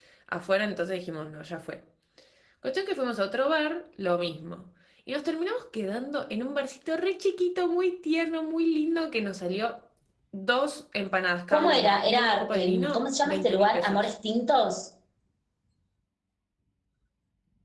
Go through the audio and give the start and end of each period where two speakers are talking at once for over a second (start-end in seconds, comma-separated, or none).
11.5-14.1